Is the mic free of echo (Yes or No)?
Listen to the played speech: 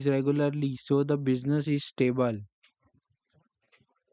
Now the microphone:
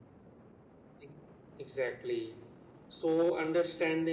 Yes